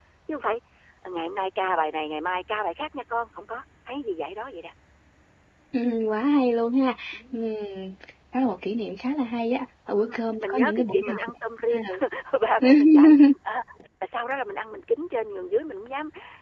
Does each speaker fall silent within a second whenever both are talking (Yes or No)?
No